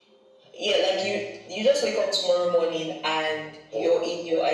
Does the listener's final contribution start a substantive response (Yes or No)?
No